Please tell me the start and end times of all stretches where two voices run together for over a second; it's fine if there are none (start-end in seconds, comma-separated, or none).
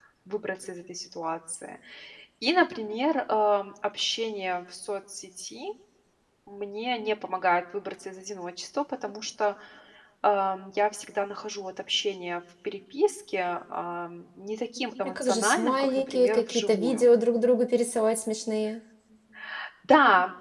15.0-17.1